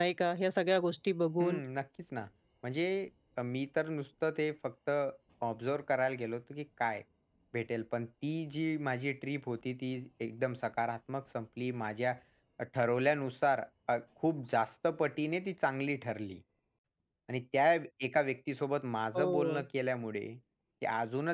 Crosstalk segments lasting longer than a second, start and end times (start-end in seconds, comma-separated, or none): none